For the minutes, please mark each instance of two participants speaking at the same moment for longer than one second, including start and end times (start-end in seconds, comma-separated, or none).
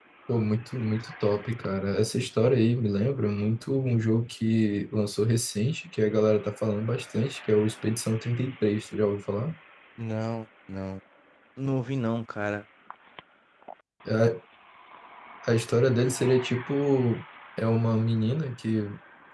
none